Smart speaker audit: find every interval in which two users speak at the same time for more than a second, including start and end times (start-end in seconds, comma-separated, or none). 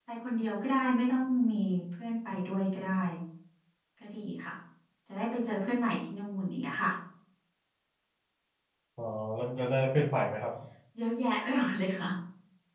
none